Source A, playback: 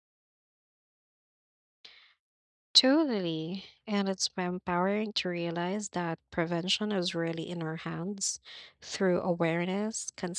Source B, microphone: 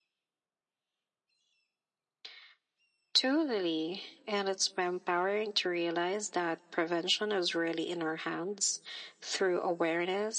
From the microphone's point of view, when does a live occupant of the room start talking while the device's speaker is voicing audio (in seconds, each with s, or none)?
none